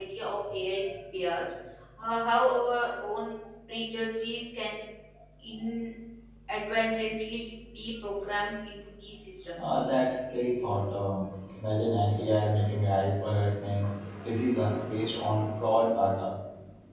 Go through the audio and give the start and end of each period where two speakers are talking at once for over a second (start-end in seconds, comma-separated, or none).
none